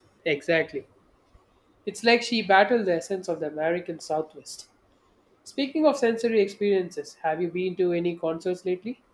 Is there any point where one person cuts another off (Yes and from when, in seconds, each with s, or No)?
No